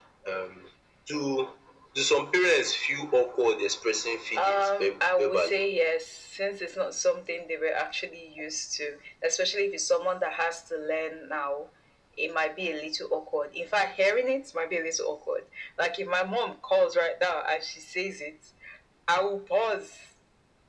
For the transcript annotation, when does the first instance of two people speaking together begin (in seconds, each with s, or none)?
4.4 s